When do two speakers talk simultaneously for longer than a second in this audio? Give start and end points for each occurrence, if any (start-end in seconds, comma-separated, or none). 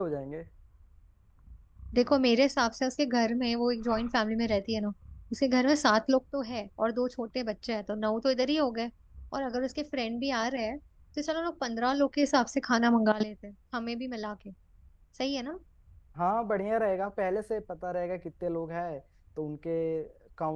none